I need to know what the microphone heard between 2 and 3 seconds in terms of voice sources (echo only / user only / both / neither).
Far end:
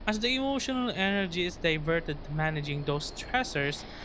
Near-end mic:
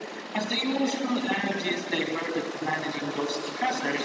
echo only